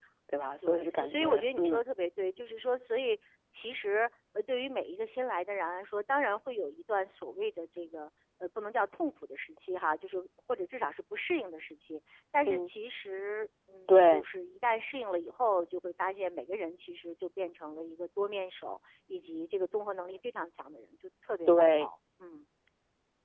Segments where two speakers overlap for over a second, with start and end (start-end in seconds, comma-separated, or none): 0.6-1.8